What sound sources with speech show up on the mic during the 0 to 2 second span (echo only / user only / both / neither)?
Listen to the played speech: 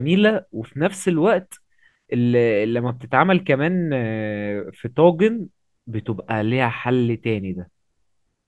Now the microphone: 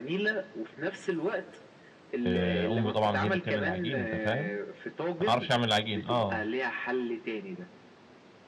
echo only